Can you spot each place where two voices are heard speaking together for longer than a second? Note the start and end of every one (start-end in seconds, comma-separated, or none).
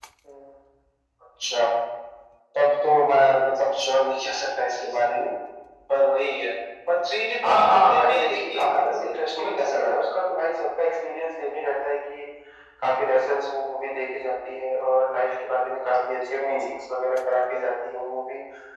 7.4-10.0